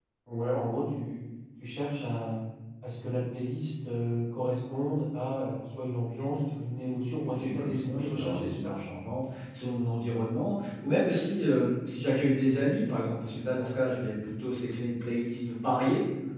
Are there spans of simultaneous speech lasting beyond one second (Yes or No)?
Yes